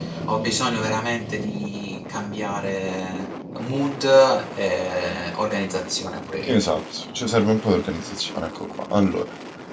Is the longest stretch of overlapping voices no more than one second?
Yes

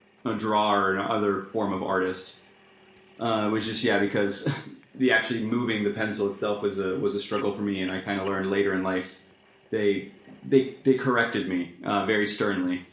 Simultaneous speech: No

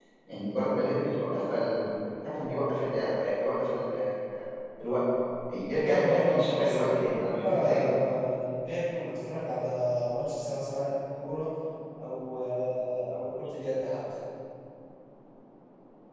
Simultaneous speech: Yes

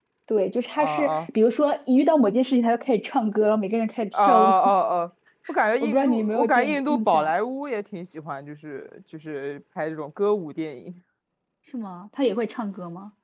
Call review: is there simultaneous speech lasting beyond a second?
Yes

